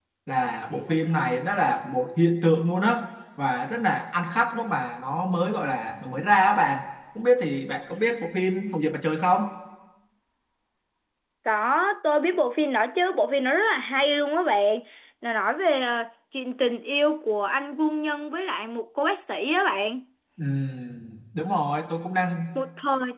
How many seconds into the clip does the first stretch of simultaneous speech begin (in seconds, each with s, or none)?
none